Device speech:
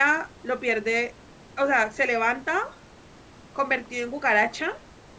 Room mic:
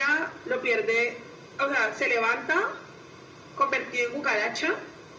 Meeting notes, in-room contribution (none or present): none